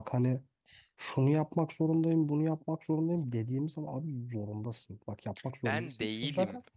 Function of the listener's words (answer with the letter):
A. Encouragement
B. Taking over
A